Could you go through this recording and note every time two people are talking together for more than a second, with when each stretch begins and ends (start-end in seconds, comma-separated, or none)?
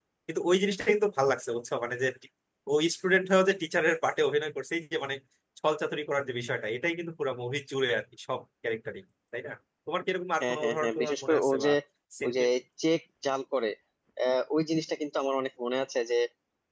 10.4-11.7